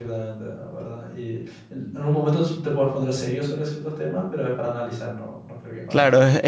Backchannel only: No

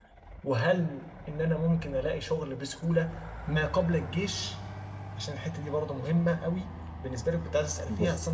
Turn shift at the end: No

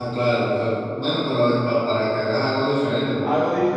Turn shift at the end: Yes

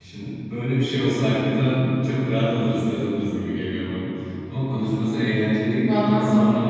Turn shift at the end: No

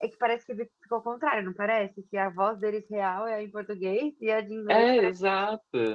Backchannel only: No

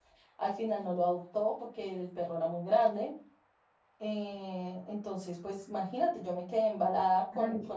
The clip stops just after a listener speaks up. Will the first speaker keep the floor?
Yes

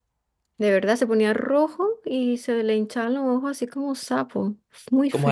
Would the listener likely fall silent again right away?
No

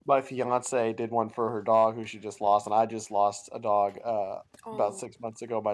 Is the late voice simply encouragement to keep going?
Yes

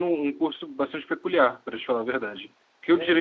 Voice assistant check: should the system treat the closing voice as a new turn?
No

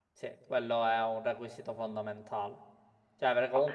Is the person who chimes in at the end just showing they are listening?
Yes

